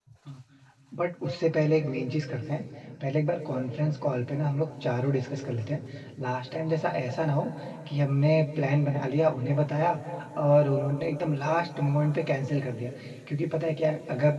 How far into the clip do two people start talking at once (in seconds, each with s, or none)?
none